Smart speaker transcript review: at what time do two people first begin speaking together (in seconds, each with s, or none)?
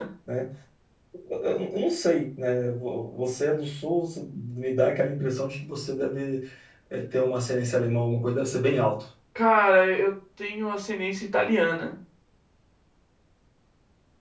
none